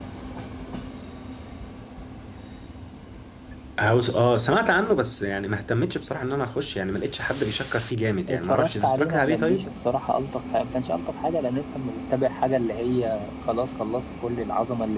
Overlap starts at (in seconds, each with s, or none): 8.3 s